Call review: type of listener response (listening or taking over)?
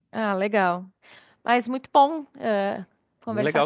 taking over